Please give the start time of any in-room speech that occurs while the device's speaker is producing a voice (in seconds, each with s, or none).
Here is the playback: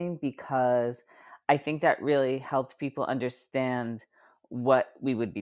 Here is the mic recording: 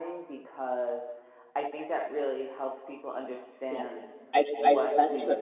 3.7 s